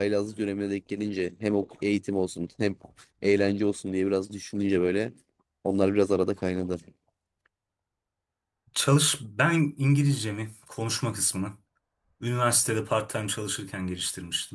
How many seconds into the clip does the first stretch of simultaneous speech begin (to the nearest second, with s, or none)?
none